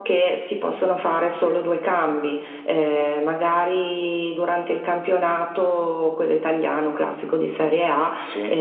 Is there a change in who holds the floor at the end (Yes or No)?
No